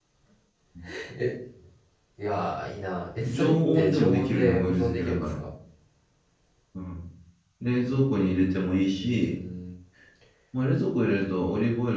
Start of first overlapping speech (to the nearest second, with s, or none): 3 s